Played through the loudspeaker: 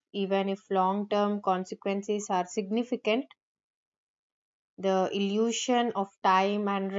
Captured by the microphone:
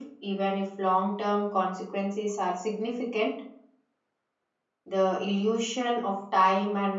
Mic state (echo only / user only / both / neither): echo only